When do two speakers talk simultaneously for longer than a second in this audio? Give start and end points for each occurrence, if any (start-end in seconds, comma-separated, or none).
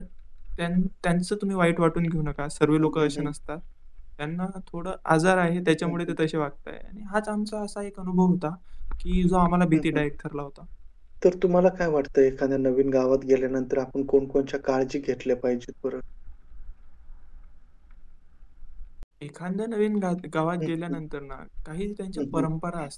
none